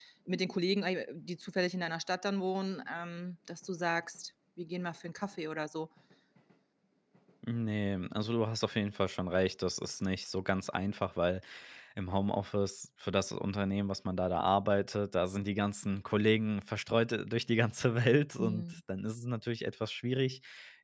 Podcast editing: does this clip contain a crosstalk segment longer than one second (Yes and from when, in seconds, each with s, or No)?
No